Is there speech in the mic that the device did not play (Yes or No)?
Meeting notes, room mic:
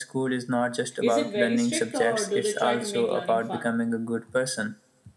Yes